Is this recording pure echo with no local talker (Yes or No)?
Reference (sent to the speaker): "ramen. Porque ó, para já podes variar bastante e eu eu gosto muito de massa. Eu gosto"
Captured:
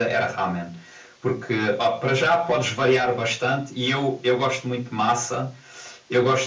Yes